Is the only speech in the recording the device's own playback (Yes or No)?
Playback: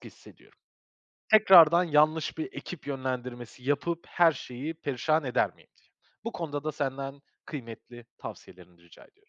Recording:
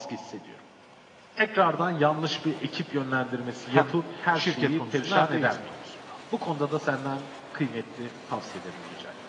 No